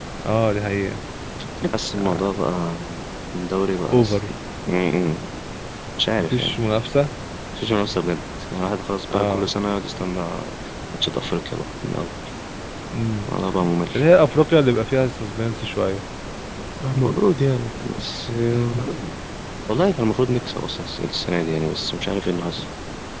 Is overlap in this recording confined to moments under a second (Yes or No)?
Yes